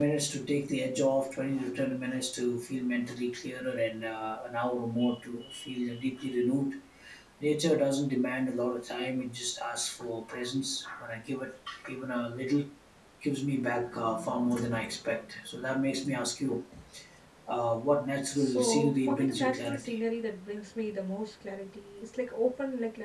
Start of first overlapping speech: 18.3 s

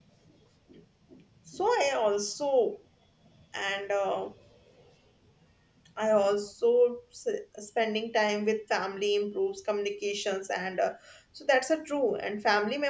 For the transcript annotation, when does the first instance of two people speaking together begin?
none

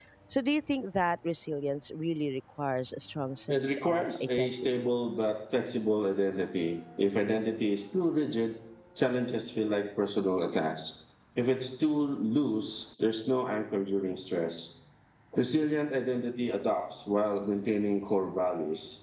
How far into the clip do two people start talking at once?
3.5 s

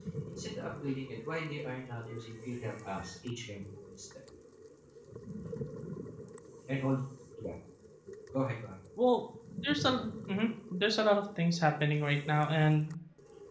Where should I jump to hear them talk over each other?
none

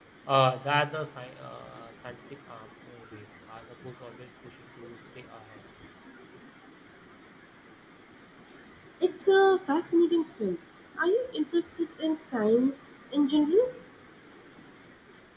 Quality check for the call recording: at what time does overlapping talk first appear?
none

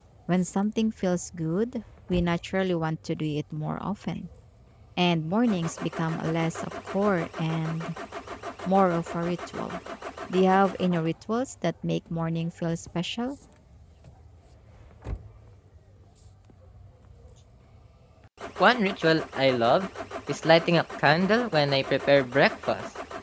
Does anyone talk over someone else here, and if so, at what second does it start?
none

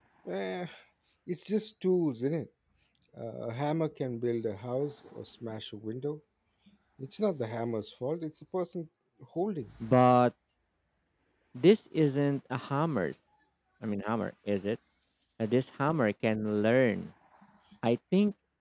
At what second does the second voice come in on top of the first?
none

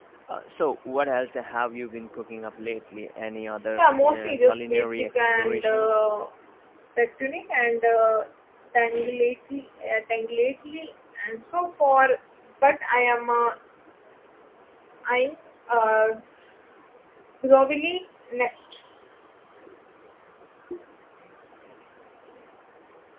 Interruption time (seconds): 3.8 s

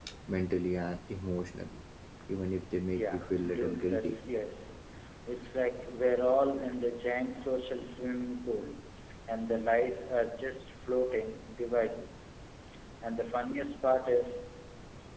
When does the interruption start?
3.0 s

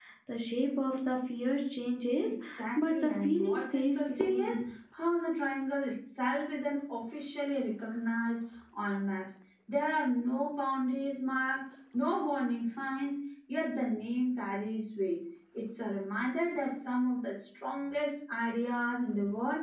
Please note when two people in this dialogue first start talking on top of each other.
2.8 s

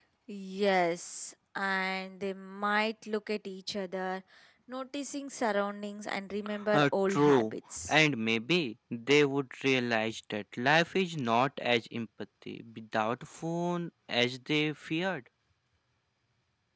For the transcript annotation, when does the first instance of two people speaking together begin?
6.7 s

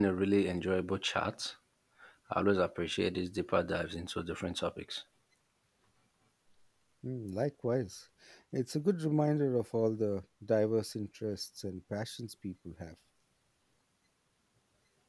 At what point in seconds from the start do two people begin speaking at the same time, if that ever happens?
none

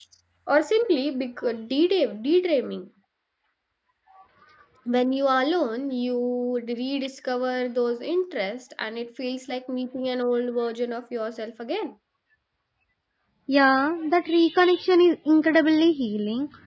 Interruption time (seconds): none

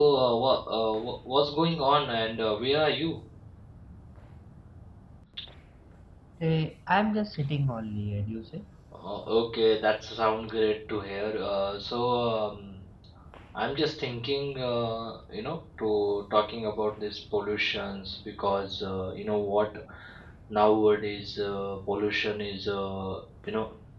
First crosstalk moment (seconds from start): none

